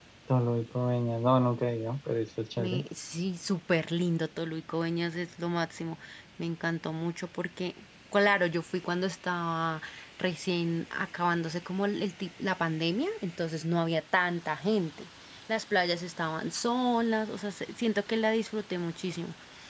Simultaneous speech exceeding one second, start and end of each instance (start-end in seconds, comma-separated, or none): none